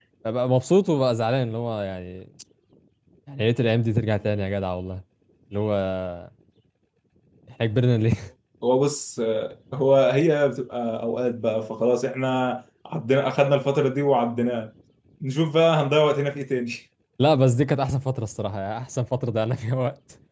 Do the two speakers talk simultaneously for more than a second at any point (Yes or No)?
No